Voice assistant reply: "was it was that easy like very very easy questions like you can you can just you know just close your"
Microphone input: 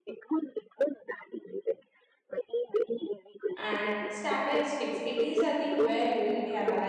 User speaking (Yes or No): Yes